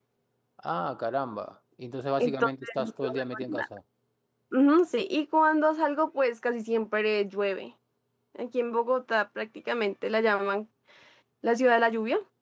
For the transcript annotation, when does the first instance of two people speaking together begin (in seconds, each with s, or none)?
2.2 s